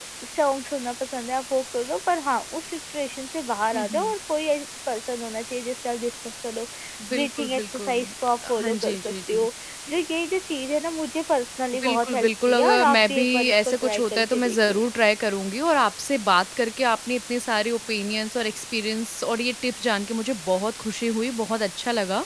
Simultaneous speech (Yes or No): Yes